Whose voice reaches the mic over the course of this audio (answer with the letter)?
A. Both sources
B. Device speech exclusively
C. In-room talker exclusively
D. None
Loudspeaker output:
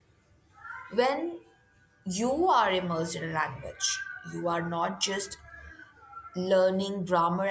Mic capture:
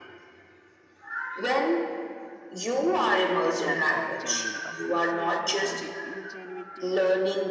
A